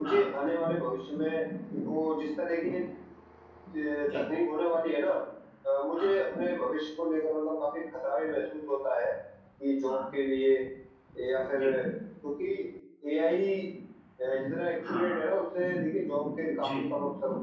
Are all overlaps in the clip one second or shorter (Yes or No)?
Yes